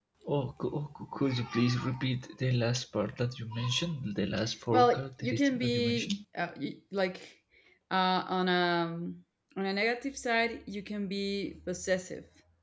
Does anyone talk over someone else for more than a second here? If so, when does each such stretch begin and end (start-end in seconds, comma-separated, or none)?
4.7-6.1